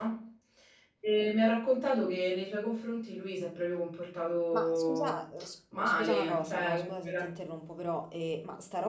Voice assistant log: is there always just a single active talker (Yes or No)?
No